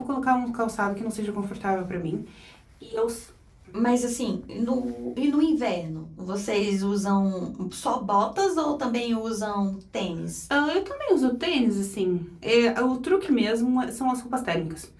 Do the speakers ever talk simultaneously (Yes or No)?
No